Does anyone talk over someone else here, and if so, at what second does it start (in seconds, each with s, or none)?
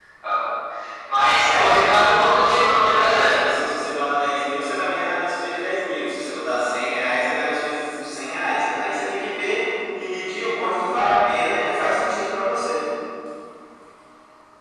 1.4 s